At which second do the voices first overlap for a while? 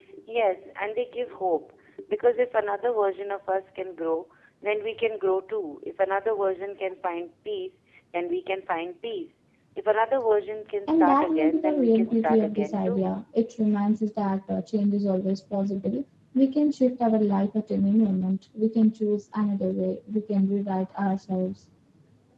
11 s

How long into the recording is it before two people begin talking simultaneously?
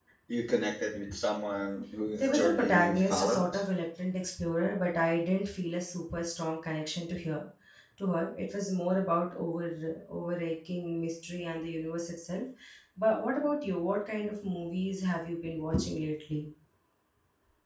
2 s

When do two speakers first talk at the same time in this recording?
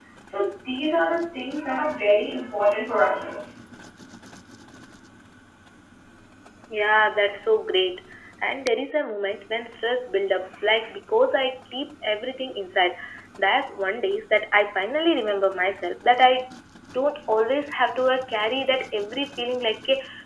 none

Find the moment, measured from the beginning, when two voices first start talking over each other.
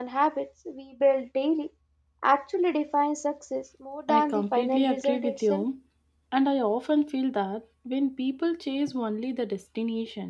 4 s

